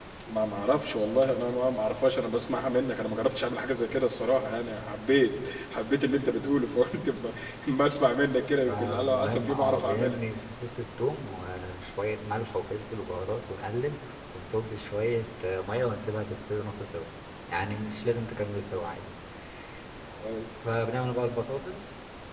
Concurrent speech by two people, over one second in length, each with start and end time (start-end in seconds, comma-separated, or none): 8.7-10.2